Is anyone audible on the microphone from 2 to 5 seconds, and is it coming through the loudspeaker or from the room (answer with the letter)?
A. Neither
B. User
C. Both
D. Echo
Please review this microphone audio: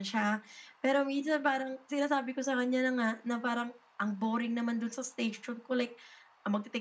D